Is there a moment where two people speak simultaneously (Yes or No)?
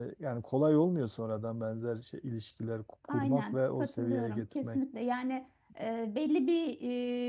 Yes